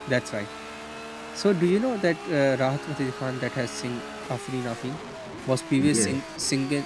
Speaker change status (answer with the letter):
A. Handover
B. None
B